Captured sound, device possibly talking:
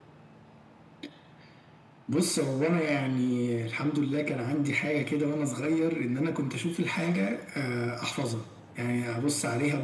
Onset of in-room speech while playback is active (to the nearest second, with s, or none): none